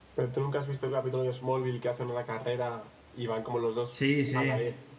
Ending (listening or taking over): taking over